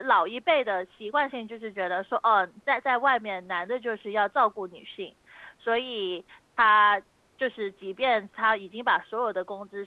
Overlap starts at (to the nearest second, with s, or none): none